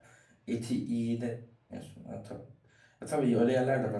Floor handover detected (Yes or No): No